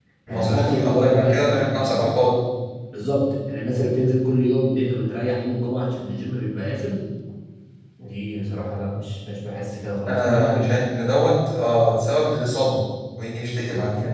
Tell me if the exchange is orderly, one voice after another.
No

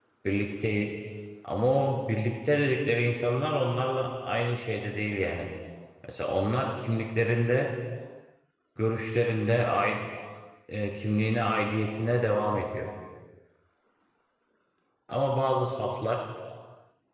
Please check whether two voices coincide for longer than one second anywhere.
No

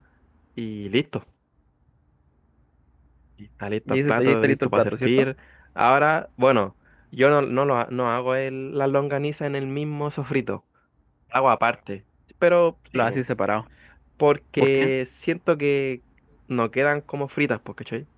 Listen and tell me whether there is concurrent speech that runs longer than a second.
Yes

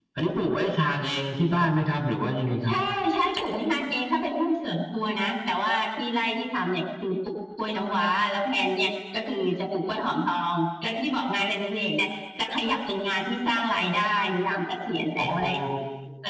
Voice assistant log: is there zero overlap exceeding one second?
Yes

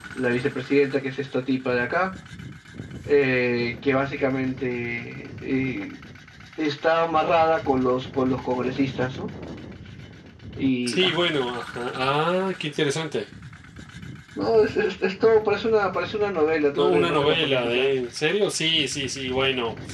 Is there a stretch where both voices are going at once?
Yes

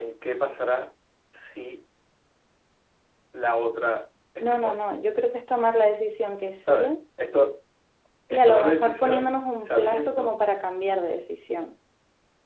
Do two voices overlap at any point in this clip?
Yes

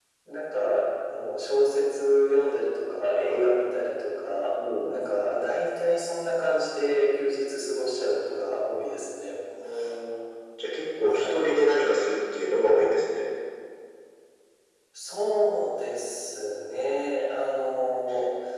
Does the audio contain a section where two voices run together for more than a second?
No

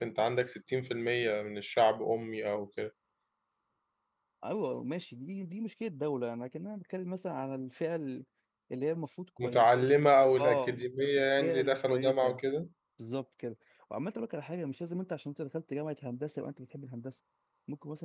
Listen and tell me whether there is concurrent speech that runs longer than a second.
Yes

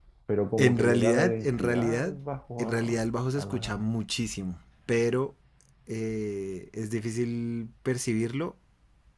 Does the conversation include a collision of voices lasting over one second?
Yes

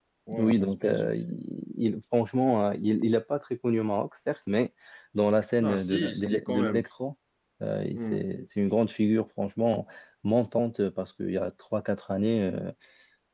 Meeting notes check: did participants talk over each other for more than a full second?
Yes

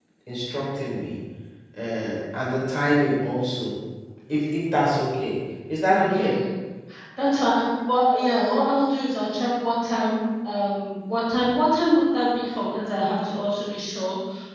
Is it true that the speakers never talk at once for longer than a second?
Yes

